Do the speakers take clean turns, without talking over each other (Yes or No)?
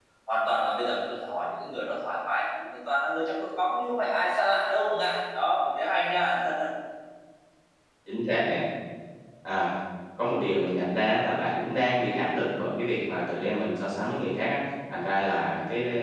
Yes